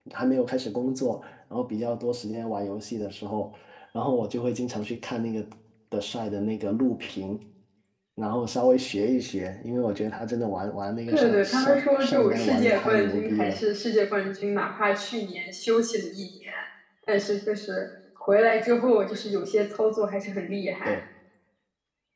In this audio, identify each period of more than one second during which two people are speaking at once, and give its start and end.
11.1-13.6

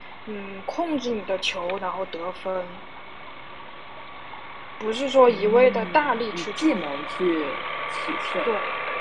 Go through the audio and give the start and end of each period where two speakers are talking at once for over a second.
5.3-6.8

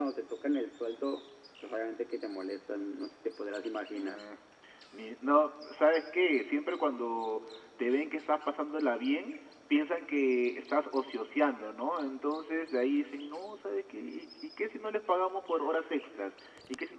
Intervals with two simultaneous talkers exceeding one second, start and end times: none

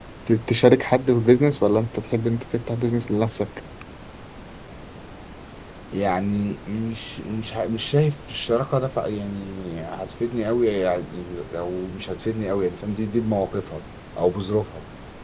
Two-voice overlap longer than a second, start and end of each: none

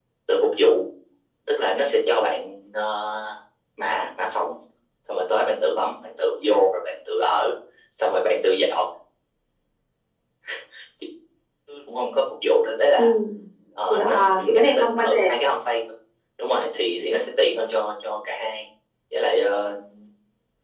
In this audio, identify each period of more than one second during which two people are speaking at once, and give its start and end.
13.9-15.3

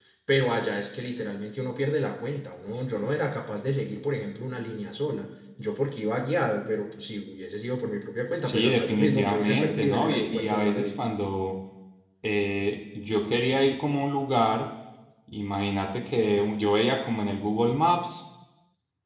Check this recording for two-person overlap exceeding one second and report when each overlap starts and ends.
8.4-11.0

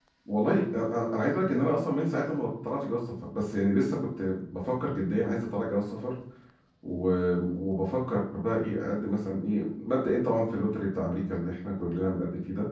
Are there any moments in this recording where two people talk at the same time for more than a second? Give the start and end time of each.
none

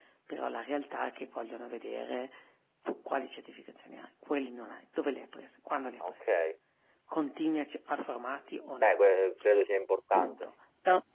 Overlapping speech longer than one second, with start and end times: none

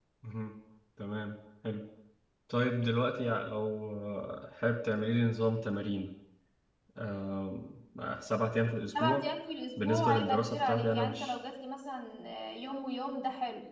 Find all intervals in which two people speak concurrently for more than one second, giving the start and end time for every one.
9.8-11.4

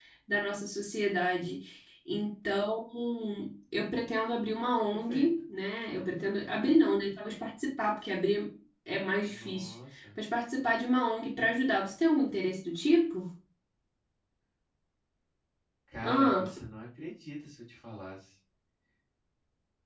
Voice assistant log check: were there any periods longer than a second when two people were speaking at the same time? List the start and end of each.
none

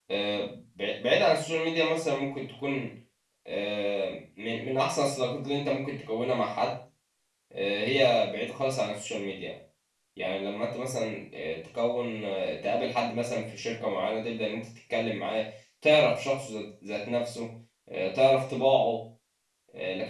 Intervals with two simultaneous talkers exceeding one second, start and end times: none

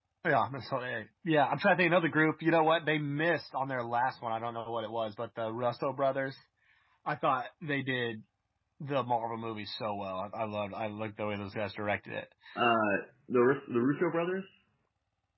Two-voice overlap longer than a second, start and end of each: none

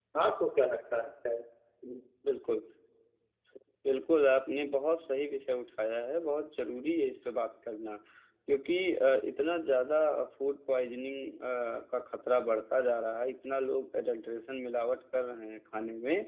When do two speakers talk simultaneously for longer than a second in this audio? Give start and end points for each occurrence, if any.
none

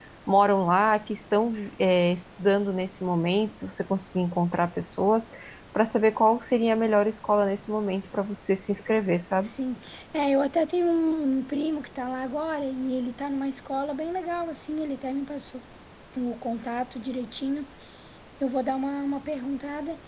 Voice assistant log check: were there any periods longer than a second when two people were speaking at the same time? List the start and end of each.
none

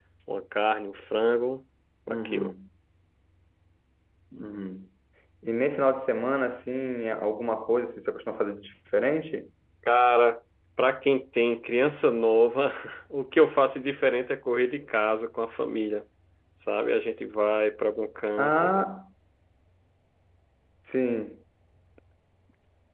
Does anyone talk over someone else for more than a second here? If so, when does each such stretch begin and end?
none

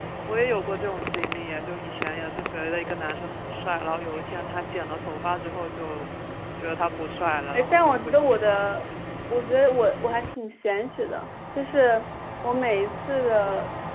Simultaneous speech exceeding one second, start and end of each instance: 7.5-8.7

